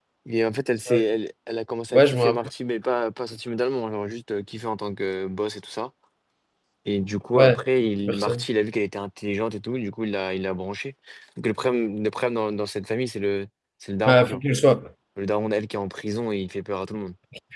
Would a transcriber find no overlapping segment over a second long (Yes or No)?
Yes